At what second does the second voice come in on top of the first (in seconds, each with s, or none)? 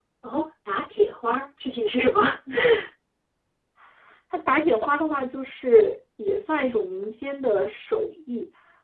none